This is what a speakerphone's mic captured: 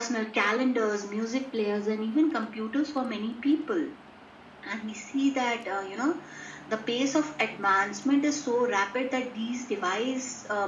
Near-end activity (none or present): none